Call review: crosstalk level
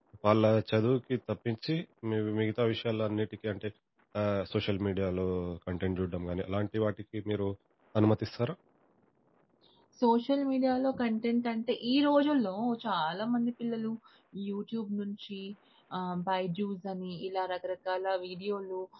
none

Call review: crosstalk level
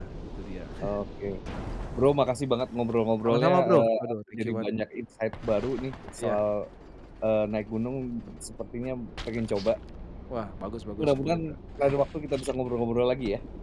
present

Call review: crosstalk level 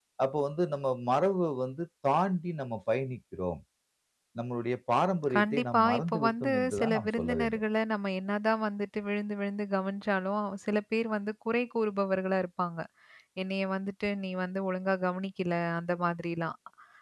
present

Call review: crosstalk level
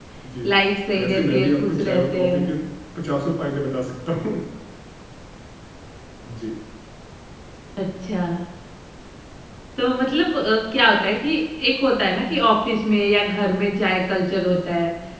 present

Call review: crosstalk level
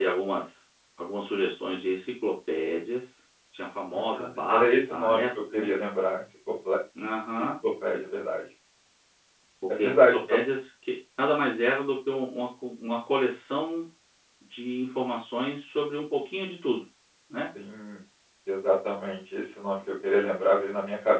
present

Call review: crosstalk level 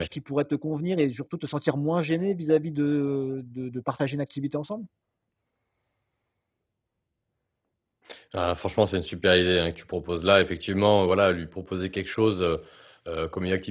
none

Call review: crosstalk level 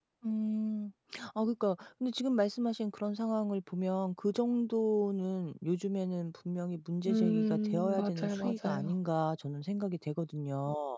present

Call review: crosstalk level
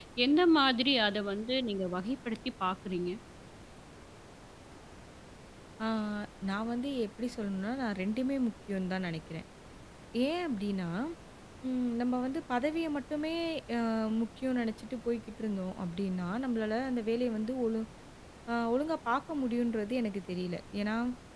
none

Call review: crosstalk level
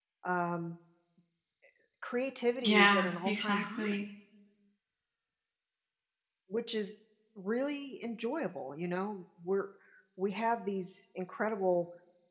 present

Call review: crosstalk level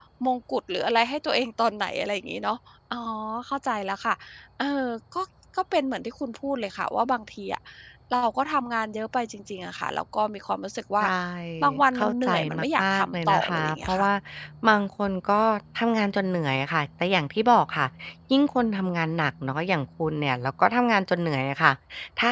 present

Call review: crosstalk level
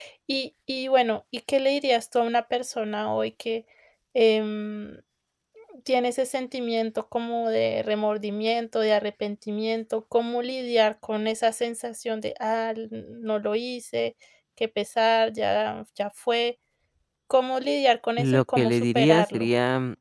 present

